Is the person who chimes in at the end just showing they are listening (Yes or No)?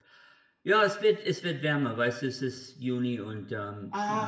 No